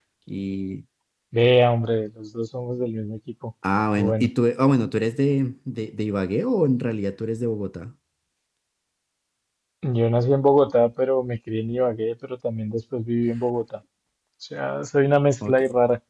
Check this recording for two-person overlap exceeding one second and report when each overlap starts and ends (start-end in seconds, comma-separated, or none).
none